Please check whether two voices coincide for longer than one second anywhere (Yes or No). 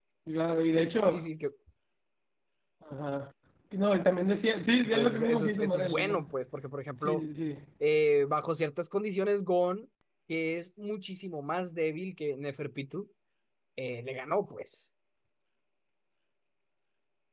Yes